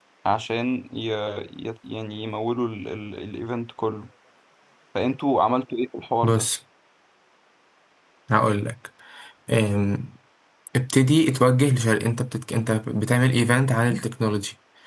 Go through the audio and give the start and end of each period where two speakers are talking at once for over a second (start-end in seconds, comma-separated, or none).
none